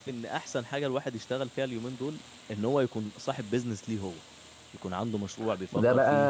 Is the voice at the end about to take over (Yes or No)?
Yes